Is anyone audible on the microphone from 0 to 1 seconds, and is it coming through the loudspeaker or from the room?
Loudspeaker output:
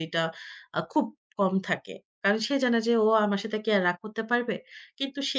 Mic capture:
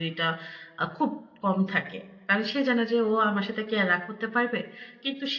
echo only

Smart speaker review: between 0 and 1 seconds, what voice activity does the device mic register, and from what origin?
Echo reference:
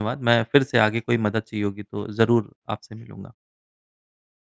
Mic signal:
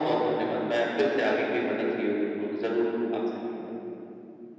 echo only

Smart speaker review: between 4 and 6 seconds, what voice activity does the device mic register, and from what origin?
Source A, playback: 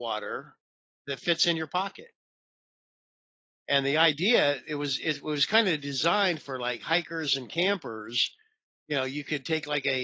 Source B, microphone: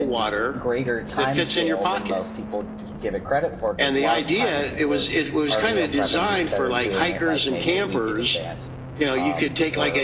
both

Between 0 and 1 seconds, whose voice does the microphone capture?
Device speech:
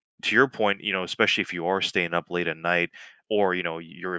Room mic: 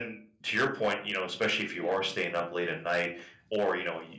echo only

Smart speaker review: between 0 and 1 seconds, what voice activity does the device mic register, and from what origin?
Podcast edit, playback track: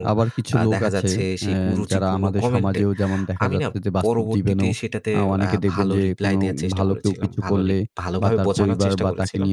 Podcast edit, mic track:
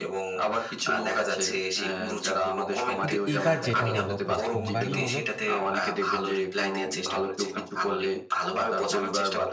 echo only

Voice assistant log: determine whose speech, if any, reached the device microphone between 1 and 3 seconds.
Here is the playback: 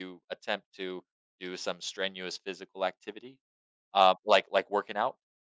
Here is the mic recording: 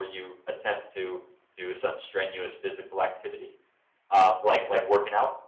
echo only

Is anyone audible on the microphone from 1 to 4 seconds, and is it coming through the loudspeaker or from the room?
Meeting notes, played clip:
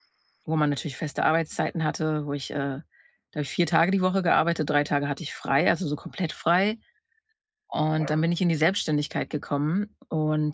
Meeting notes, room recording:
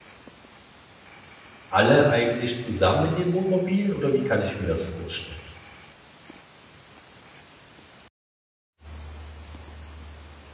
user only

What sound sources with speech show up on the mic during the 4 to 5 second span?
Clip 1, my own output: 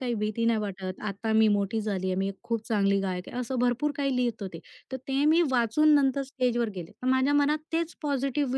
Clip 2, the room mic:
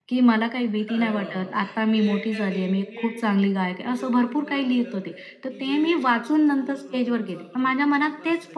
both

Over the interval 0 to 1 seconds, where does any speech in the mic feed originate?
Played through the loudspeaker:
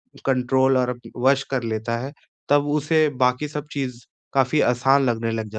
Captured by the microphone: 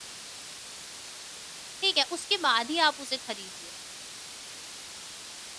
neither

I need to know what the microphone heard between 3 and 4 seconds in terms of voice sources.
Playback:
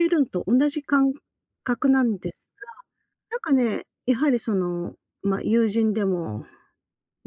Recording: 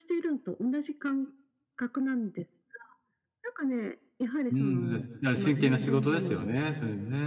echo only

